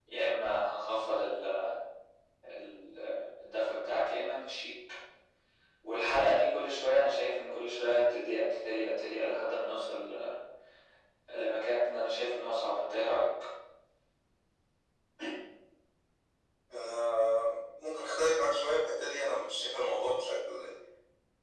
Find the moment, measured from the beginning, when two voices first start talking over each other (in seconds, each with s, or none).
none